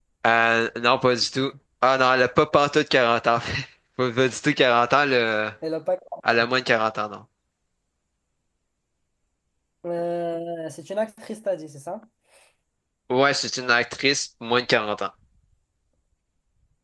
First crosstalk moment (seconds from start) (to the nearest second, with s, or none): none